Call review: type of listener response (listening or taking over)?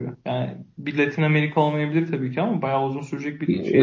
taking over